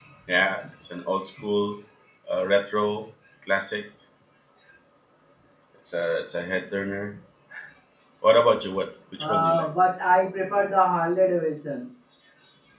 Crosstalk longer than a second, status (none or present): none